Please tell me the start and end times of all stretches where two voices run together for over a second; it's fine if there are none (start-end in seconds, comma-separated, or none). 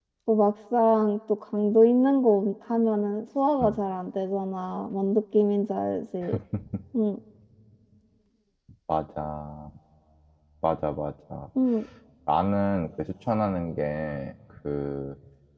none